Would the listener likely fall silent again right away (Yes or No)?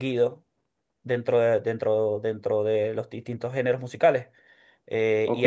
No